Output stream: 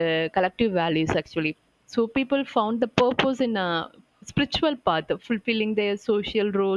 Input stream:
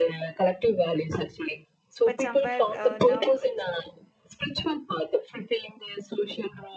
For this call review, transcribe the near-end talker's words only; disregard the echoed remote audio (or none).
but somewhere uh, now it's